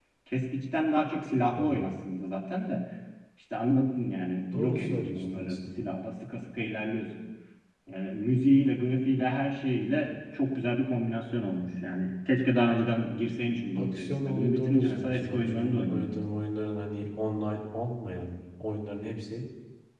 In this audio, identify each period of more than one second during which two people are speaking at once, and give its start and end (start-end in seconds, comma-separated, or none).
4.5-5.9, 13.8-16.1